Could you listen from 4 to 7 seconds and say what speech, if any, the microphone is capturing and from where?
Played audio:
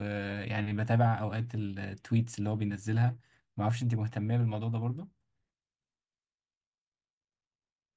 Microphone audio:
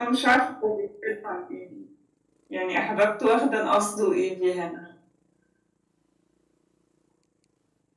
user only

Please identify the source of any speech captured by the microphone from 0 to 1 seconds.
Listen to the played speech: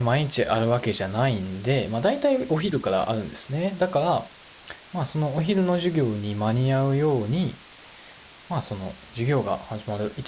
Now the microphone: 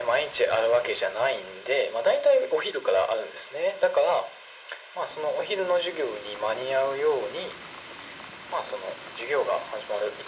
echo only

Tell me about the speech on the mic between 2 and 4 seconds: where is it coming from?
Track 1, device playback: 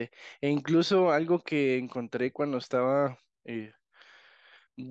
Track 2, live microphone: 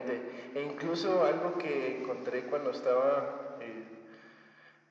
echo only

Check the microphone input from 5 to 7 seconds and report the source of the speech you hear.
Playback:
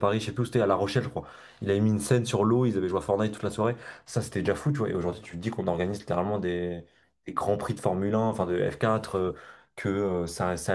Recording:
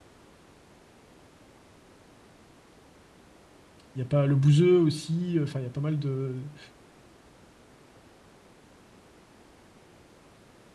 user only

